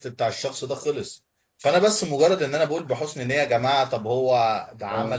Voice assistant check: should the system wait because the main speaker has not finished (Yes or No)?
Yes